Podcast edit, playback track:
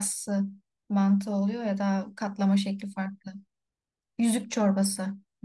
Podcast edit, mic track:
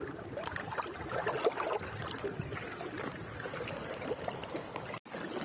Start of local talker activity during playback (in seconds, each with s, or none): none